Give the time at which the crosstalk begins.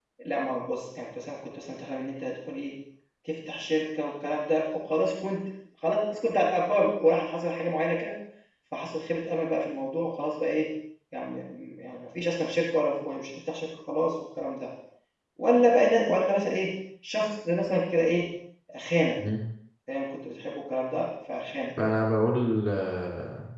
none

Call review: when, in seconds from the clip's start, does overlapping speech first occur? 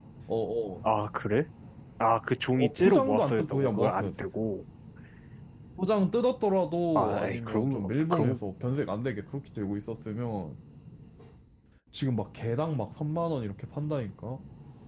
2.5 s

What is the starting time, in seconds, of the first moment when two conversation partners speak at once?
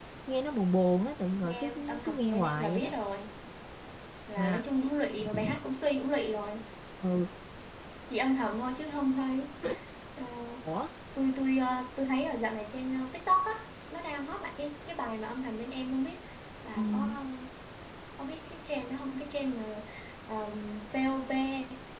1.4 s

